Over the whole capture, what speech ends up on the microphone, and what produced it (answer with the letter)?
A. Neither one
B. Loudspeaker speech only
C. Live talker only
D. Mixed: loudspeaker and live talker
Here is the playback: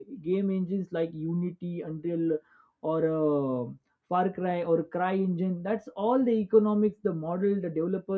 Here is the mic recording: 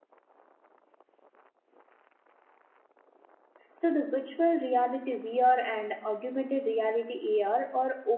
C